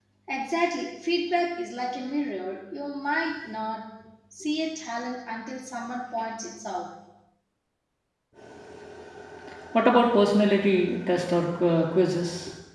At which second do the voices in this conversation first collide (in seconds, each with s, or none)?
none